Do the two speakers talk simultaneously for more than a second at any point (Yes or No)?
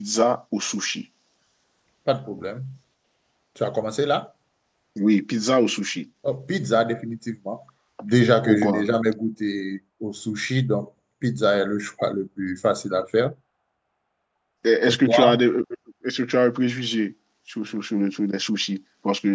No